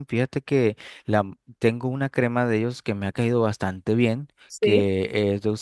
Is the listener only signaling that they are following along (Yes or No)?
Yes